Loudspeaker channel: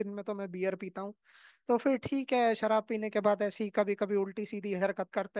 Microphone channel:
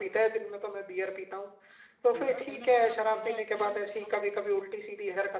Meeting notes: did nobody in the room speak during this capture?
No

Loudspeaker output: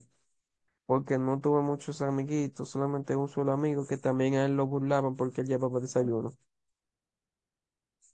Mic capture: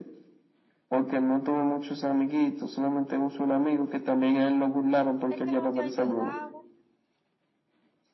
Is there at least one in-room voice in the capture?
Yes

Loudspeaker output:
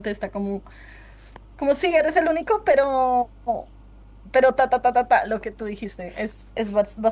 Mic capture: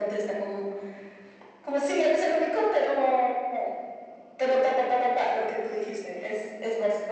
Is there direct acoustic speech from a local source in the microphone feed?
No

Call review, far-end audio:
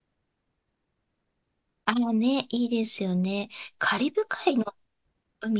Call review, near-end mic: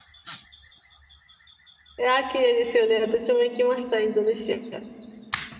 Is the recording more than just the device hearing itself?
Yes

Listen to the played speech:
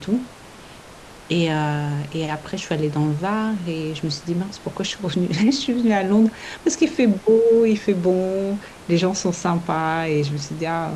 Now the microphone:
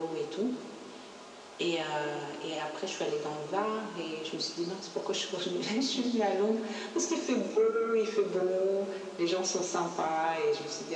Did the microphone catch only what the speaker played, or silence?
Yes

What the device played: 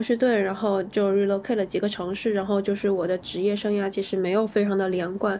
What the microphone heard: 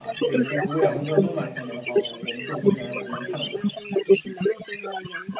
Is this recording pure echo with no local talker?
No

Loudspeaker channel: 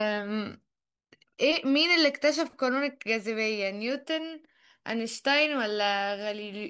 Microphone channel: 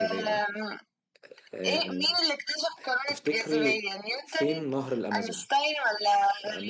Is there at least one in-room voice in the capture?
Yes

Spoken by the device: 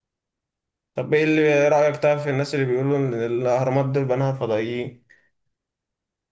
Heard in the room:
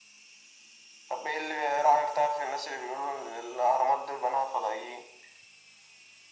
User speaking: No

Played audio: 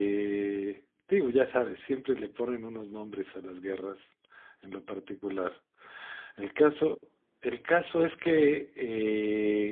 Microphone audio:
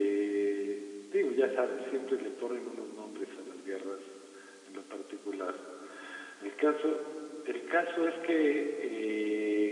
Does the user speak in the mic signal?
No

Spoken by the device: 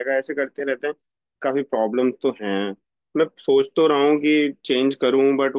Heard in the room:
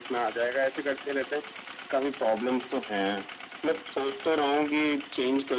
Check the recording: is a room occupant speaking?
No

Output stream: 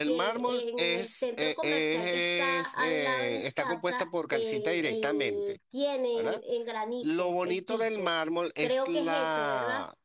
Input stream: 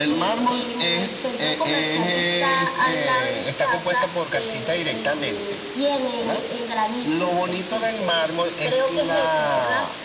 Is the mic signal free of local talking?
Yes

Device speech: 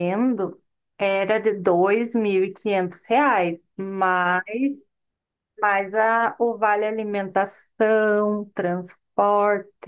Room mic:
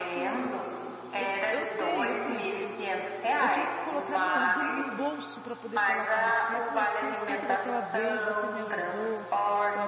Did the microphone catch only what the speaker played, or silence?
No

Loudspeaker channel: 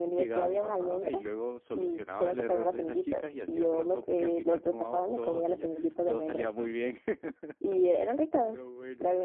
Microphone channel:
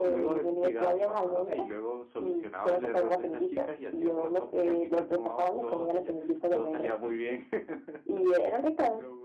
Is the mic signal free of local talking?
Yes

